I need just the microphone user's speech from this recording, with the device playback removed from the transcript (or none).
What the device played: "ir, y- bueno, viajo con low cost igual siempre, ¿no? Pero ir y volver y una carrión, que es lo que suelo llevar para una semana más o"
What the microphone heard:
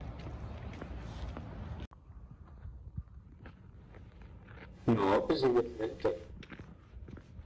No, pues seguramente.